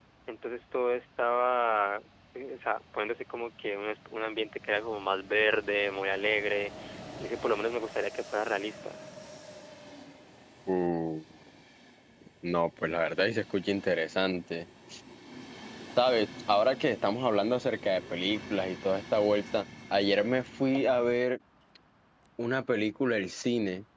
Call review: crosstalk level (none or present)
none